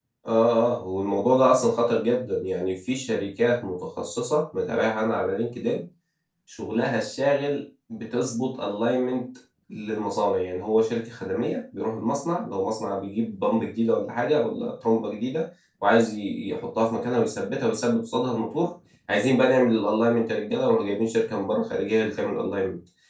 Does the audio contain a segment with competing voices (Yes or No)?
No